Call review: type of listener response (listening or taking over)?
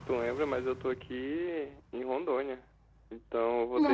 listening